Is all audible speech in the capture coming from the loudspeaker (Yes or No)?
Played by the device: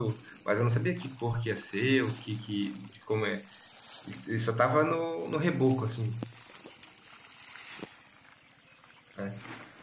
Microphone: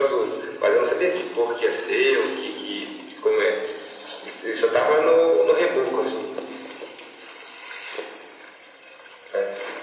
Yes